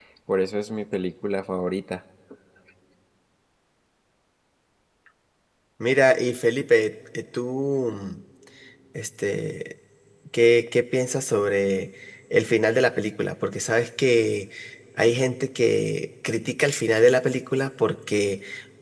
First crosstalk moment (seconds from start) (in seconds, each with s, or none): none